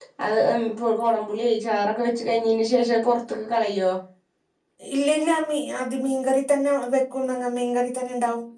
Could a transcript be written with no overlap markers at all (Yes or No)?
Yes